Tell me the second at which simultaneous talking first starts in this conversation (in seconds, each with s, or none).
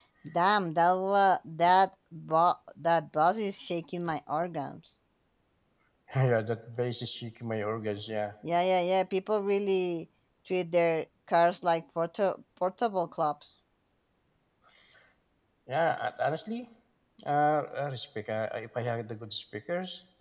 none